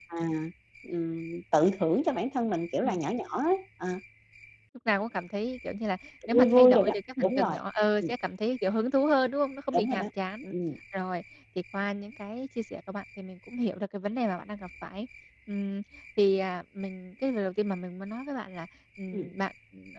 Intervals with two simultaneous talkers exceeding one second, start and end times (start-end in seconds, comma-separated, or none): 6.3-7.6